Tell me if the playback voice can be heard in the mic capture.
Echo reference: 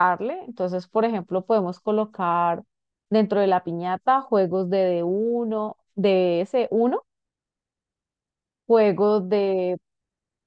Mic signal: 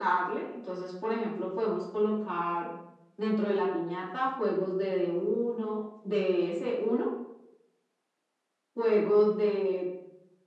Yes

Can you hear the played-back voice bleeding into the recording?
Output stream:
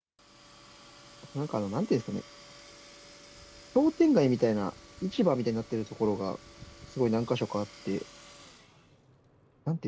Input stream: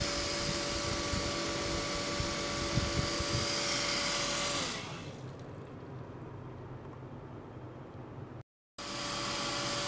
No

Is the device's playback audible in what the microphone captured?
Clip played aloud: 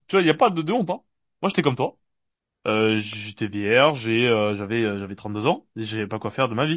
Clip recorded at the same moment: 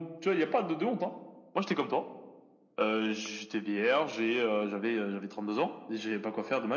Yes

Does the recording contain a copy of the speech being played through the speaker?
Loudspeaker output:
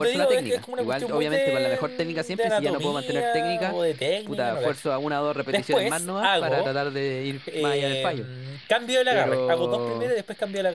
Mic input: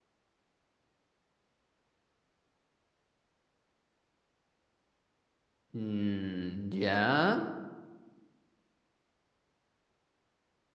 No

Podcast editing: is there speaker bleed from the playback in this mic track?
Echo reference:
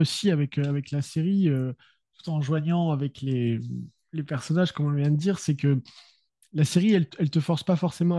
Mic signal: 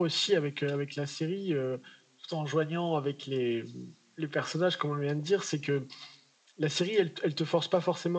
Yes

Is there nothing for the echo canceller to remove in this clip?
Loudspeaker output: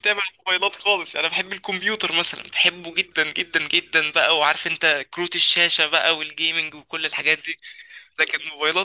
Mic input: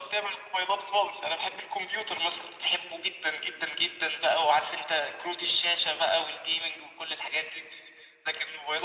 No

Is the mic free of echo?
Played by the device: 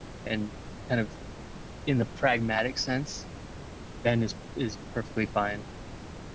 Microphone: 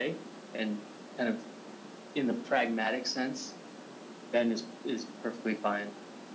No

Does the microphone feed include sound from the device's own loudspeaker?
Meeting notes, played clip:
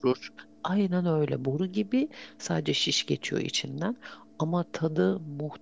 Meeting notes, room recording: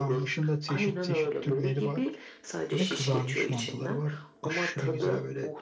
Yes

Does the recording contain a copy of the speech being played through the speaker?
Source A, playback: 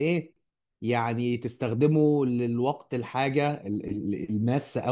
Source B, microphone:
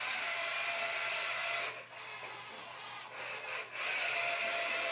No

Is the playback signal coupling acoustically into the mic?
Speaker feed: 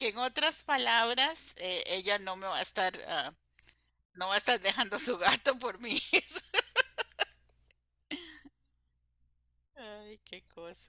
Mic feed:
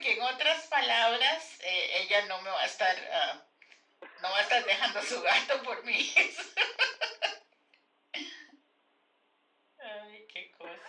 Yes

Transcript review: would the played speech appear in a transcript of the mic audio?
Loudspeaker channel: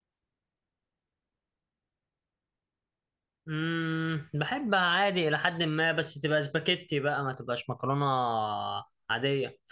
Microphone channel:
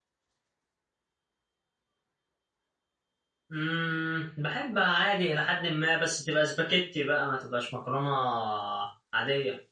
Yes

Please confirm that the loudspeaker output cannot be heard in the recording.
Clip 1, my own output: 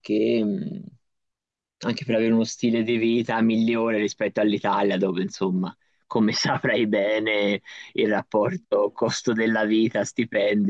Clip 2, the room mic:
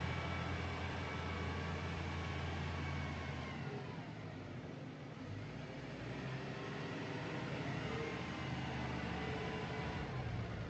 Yes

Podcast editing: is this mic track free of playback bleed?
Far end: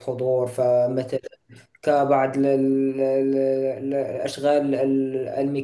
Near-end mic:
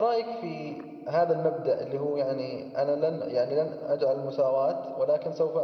Yes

